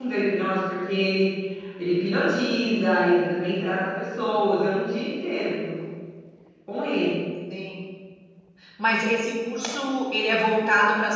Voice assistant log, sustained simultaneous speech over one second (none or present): none